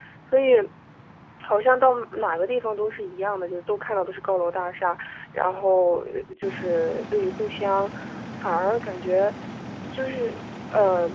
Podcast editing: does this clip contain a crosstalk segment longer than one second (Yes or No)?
No